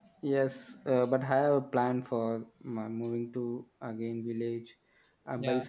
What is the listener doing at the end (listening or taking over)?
listening